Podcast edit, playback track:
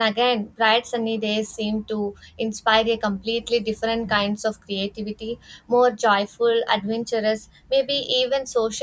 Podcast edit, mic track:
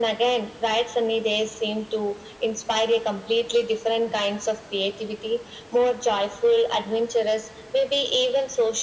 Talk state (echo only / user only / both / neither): echo only